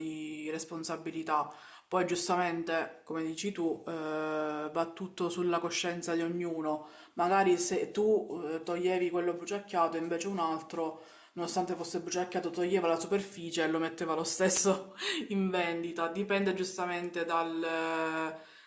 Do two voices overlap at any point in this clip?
No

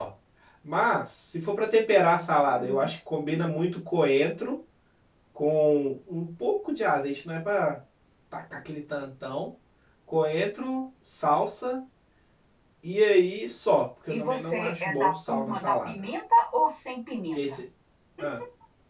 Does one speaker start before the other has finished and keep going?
Yes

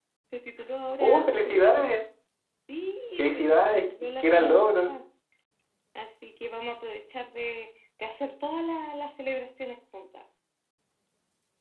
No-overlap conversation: No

